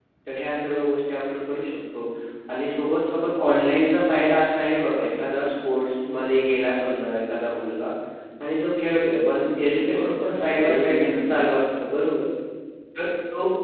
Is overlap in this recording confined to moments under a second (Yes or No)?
No